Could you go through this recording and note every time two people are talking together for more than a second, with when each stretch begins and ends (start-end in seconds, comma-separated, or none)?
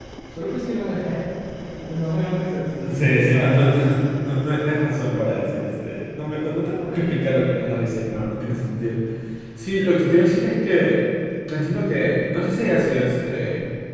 2.8-4.1